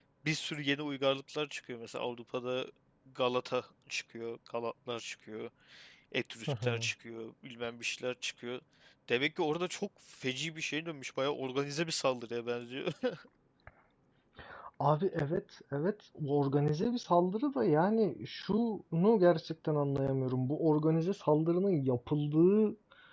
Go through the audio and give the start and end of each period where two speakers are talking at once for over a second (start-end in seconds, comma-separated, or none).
none